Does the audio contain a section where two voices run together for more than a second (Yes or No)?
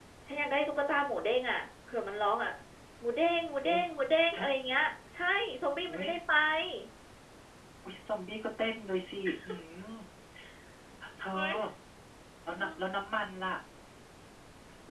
No